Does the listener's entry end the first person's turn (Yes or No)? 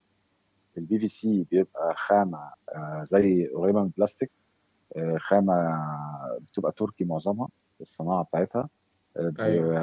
No